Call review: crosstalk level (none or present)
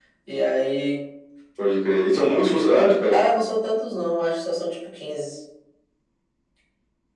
none